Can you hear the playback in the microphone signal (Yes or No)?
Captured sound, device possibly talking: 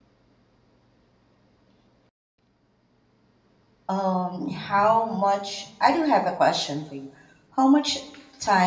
No